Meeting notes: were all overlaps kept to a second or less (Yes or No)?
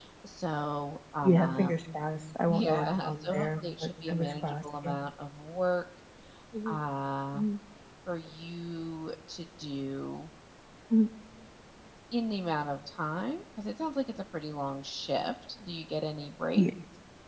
No